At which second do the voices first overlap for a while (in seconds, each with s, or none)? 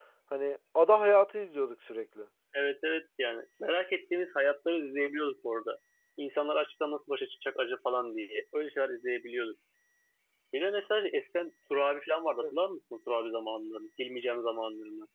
none